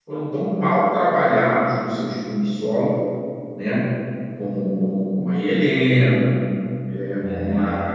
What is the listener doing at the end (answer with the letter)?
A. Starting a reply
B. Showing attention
B